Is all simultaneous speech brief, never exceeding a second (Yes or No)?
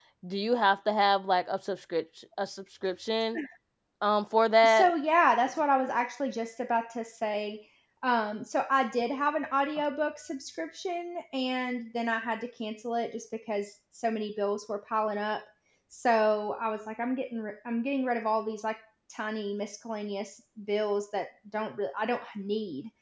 Yes